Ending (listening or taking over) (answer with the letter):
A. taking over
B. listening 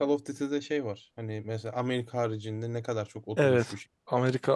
A